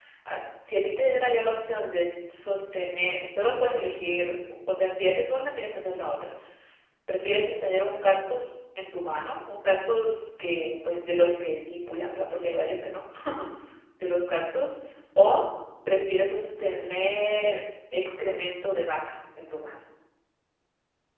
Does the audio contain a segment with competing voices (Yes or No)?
No